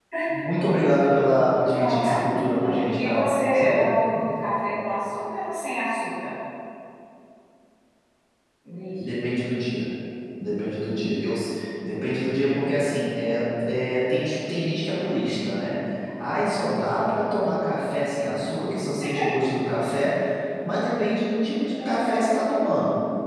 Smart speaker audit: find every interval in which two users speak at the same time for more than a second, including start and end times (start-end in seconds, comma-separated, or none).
1.8-4.9